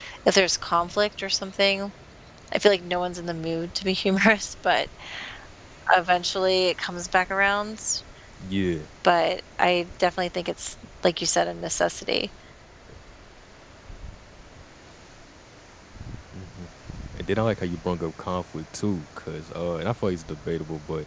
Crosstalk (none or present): none